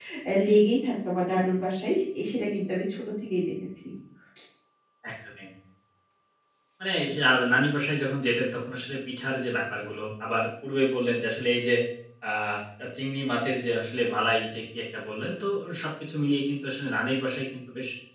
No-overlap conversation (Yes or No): Yes